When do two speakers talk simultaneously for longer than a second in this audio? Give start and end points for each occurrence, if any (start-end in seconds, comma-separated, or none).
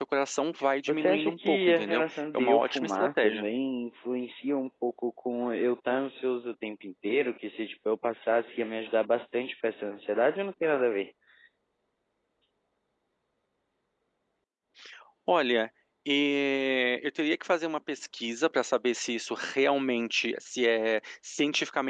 0.9-3.5